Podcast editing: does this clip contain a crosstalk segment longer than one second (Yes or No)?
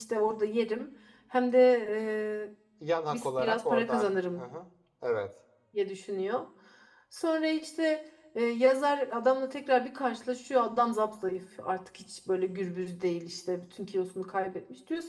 Yes